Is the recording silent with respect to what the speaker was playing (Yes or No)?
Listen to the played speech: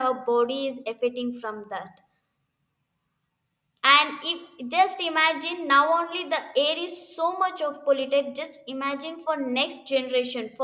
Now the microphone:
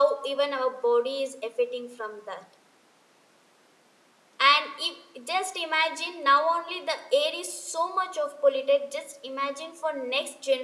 No